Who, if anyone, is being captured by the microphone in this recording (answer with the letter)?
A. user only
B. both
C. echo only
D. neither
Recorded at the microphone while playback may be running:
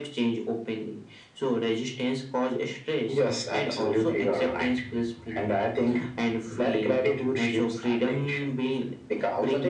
C